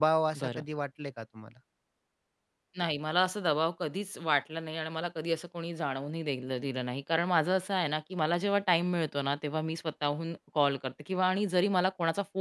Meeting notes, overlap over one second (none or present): none